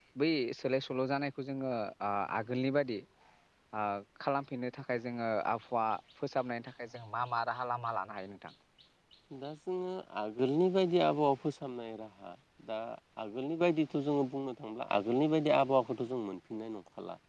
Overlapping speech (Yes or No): No